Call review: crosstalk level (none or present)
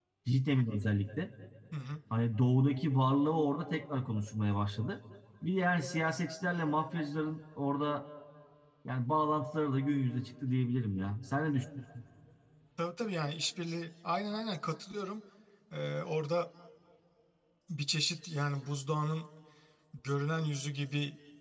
none